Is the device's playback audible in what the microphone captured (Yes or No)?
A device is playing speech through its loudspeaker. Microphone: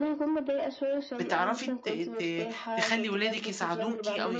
Yes